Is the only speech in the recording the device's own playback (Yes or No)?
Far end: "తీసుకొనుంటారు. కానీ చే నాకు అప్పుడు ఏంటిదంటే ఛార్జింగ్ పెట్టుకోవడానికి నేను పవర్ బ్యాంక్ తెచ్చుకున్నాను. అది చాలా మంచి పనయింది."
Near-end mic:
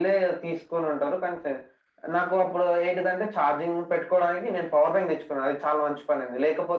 Yes